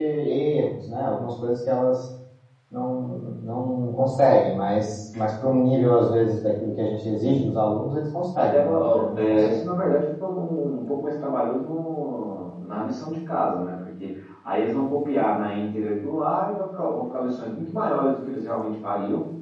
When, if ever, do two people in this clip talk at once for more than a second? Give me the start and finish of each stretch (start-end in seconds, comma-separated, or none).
8.4-9.6